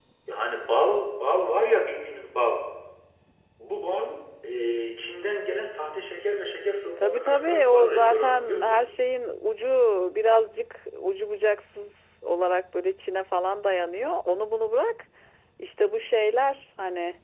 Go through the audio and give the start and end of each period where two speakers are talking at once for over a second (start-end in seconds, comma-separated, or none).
7.0-8.8